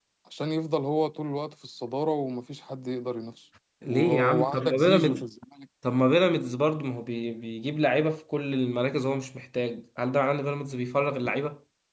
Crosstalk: present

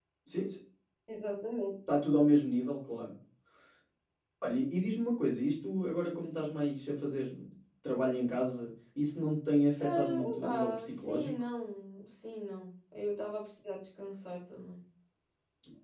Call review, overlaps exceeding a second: present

